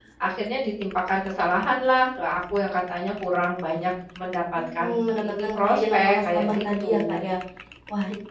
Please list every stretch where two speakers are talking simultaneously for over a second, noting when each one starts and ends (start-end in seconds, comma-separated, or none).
5.3-7.0